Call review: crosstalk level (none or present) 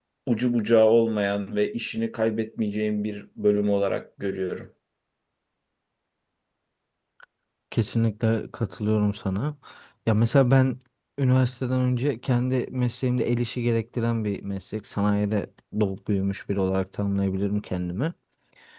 none